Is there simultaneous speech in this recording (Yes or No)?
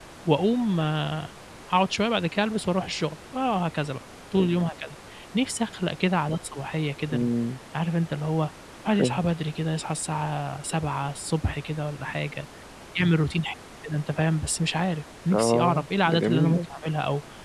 Yes